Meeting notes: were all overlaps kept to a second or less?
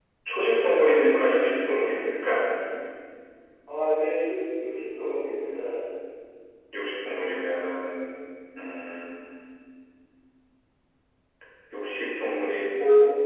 Yes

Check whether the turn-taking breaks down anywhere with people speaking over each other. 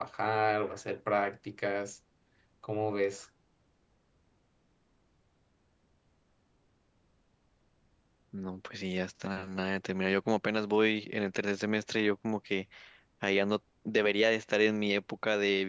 No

